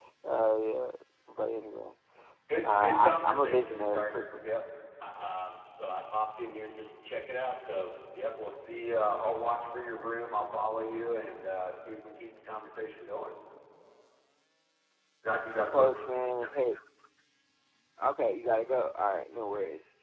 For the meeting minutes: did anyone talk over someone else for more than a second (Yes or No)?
Yes